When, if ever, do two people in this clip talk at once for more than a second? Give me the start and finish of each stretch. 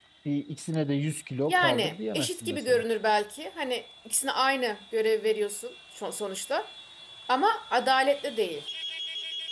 1.5-2.8

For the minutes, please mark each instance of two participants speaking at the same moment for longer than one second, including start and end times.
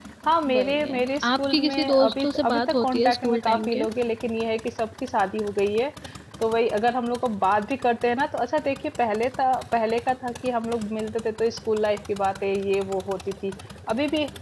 0.5-3.8

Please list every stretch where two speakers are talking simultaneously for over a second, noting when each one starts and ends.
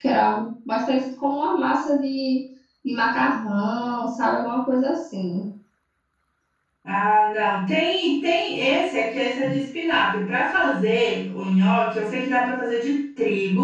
none

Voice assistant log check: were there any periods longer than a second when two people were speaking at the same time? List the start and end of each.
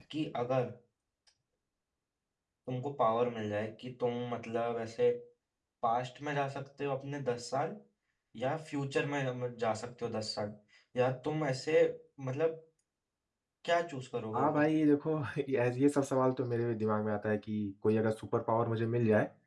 none

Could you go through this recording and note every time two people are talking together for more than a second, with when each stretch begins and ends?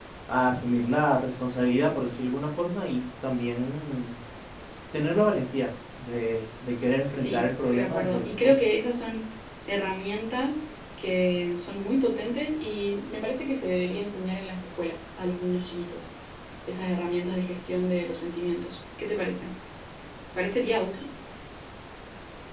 7.2-8.6

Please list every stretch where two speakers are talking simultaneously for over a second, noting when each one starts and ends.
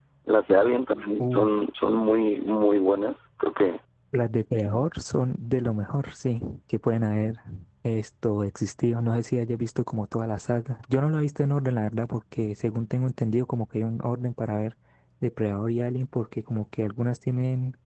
none

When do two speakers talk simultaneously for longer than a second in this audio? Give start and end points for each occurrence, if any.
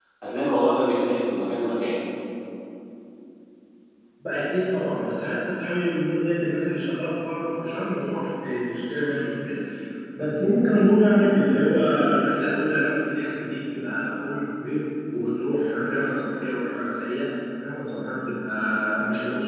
none

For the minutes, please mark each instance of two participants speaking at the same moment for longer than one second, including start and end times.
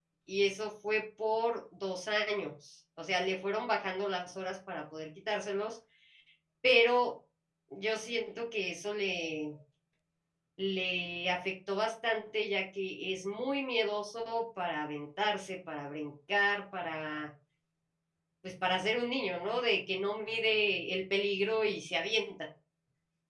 none

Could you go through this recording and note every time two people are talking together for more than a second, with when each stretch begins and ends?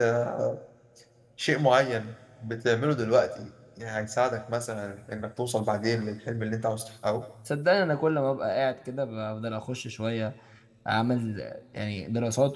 none

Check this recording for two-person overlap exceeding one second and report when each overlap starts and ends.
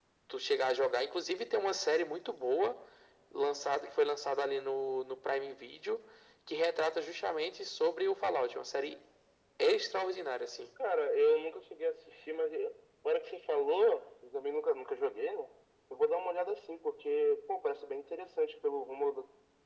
none

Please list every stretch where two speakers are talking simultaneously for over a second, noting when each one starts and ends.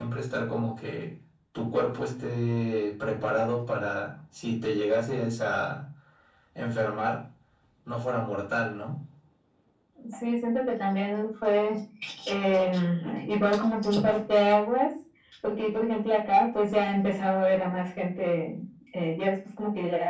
none

